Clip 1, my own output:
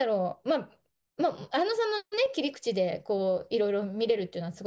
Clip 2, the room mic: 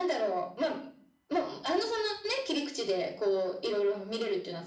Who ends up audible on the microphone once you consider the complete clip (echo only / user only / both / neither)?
echo only